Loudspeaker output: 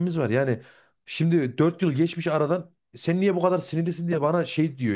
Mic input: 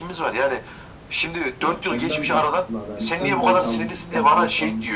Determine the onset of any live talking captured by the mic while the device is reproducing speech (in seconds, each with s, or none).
1.6 s